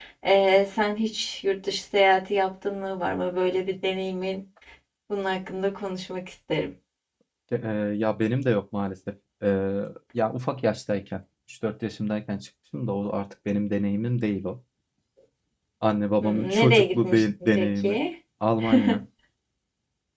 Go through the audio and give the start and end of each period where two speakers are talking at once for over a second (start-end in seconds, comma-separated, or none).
16.2-18.0